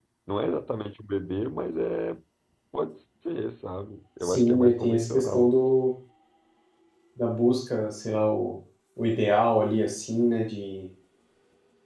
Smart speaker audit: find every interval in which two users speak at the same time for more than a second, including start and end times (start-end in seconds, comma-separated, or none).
4.2-5.5